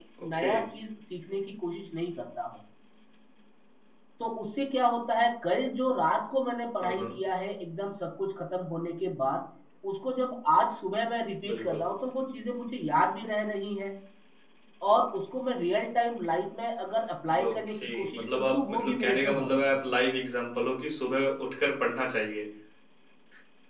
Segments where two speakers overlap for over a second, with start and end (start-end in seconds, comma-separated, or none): 17.4-19.9